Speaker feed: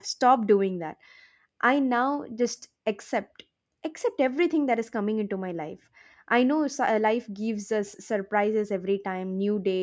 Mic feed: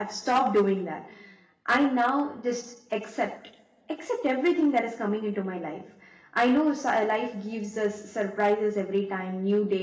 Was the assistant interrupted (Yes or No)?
No